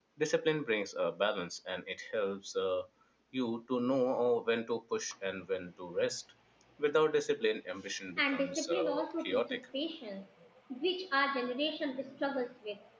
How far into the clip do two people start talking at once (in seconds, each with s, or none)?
8.2 s